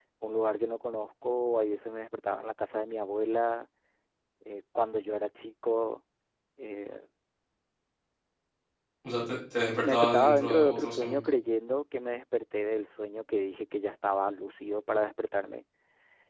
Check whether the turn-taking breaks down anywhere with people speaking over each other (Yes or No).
Yes